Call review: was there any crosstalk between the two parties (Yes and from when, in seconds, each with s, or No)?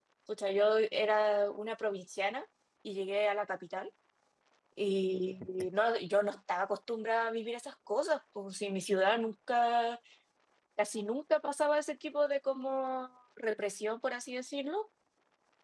No